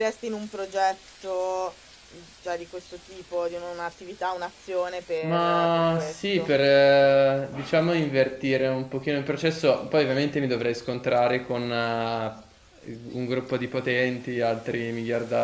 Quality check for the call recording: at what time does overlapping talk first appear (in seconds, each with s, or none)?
5.2 s